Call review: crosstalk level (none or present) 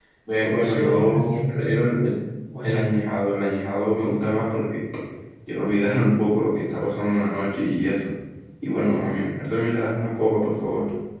present